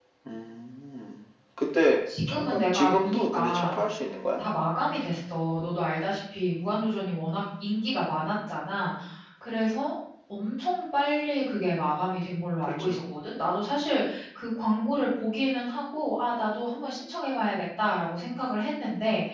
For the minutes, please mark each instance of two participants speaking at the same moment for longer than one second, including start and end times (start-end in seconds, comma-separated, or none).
2.3-3.8